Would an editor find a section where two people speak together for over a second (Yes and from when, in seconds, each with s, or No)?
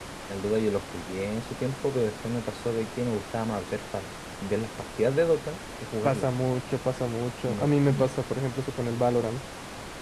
No